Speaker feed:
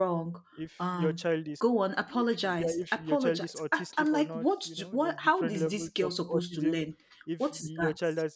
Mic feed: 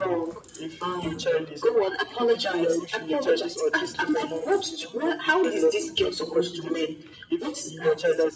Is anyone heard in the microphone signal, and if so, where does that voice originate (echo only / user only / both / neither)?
echo only